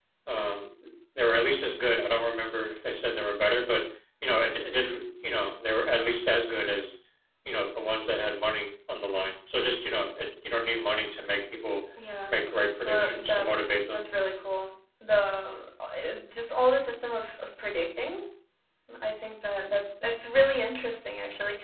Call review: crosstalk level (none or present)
present